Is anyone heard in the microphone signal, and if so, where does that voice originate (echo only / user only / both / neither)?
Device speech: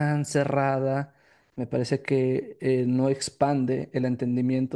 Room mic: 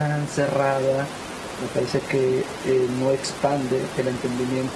echo only